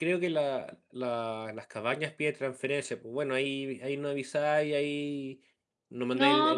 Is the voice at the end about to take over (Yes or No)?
No